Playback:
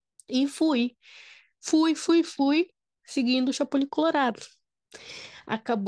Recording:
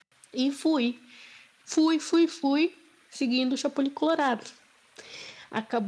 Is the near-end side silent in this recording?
Yes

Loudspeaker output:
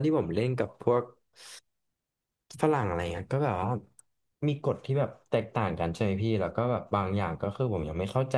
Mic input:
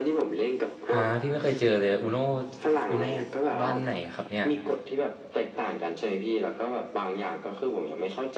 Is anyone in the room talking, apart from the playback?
Yes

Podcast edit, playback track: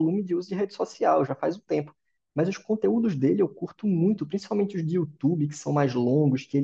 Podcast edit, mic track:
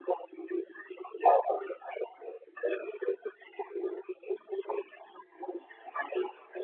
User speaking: No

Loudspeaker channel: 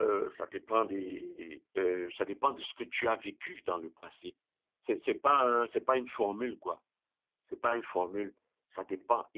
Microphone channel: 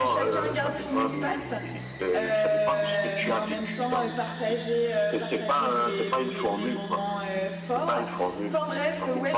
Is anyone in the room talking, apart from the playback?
Yes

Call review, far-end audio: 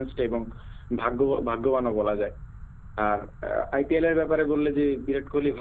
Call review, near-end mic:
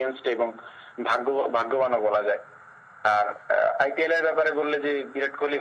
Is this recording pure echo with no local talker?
Yes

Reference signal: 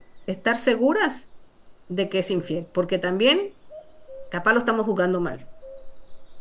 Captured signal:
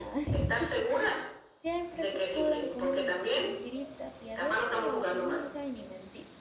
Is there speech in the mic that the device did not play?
Yes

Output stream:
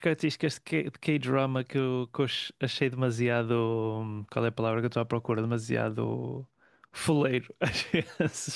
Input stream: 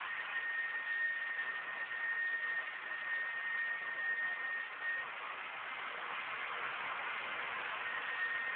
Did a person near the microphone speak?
No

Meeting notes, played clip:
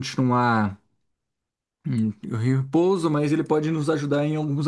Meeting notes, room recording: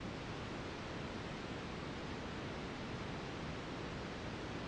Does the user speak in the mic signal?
No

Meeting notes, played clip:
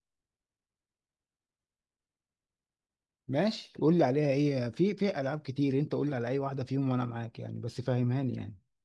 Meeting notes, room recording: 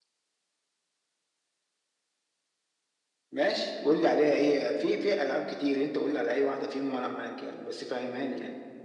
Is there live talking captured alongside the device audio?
No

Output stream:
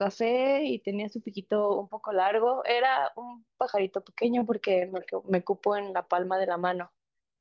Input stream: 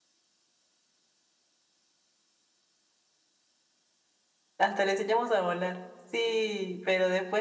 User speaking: Yes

